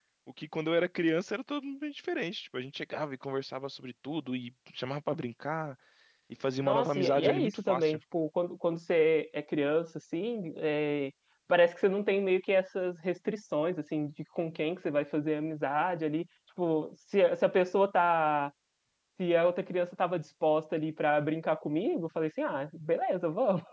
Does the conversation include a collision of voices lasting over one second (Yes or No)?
Yes